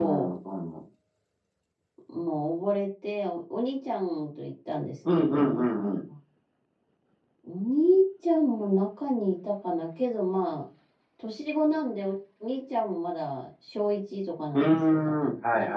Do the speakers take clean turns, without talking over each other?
No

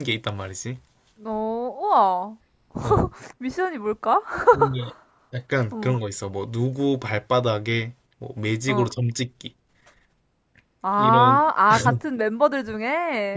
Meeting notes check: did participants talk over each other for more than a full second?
No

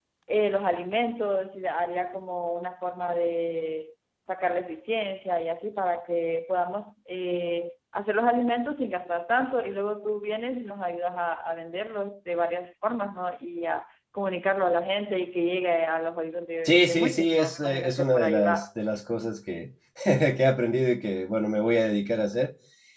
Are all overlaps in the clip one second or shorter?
No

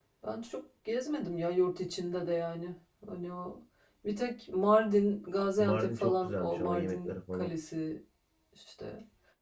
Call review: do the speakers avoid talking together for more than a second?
No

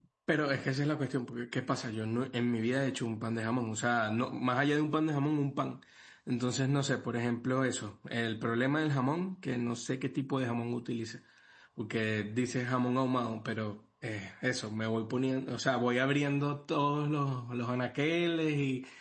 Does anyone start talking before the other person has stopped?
No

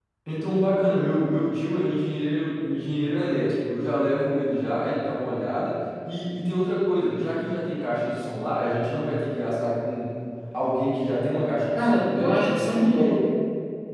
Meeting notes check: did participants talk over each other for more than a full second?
Yes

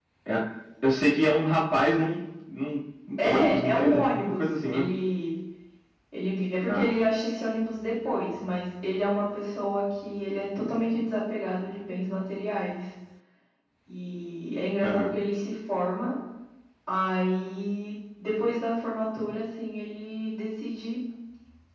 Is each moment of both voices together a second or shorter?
No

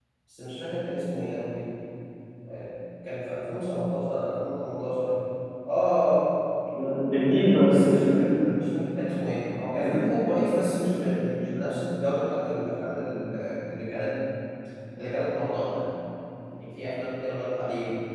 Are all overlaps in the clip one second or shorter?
No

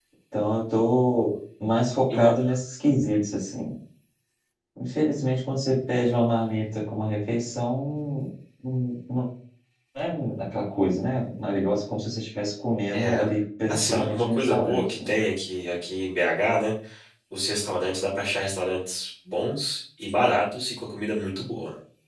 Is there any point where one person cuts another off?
Yes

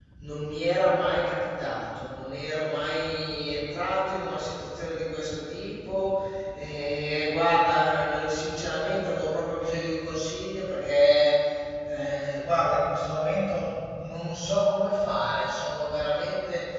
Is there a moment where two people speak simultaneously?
No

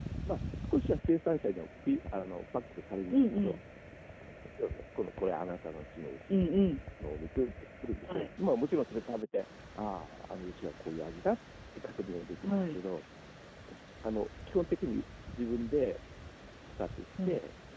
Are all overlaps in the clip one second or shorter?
Yes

